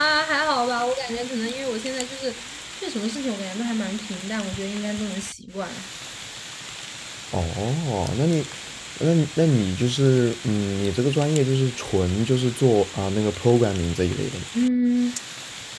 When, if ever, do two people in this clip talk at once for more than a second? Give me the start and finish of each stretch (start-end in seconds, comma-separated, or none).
none